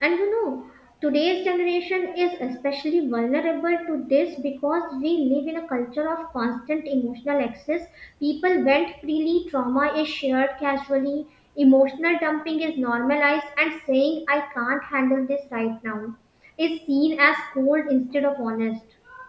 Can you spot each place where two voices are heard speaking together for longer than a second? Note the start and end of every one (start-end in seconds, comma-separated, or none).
none